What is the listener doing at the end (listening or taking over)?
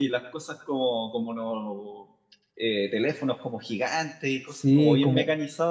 taking over